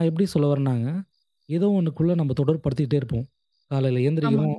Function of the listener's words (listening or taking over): listening